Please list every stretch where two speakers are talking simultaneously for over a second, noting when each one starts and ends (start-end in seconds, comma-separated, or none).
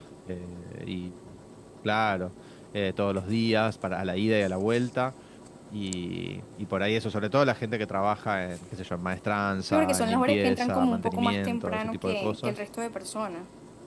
9.7-12.6